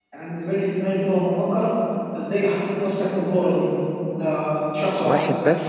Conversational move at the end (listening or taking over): listening